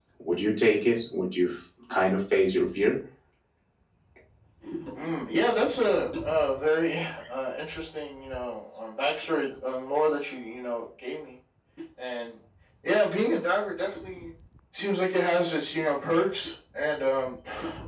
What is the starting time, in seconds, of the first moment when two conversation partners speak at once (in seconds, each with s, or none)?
none